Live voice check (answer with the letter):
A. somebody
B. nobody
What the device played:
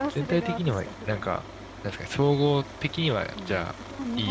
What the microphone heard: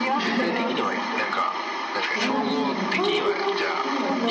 A